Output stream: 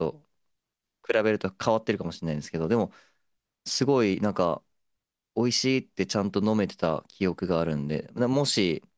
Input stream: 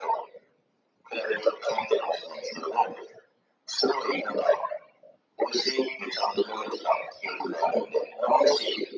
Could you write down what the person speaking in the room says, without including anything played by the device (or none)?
none